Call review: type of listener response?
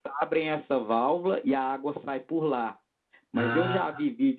listening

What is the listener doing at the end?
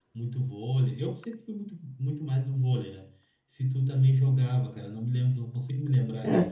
taking over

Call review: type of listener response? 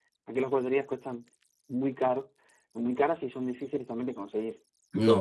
taking over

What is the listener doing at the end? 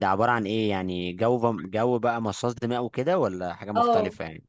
taking over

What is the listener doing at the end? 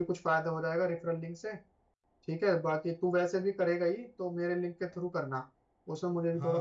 taking over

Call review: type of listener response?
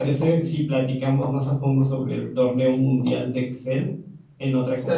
taking over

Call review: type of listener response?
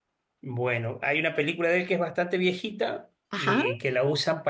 listening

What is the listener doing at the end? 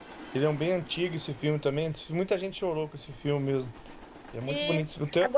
taking over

